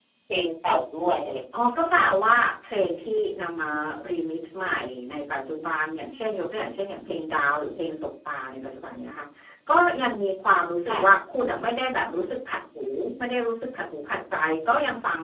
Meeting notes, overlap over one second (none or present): none